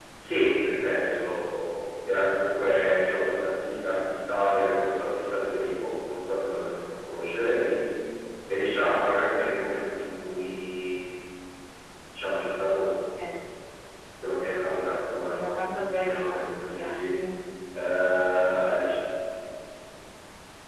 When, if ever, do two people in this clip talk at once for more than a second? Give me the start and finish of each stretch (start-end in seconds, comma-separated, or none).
15.3-17.1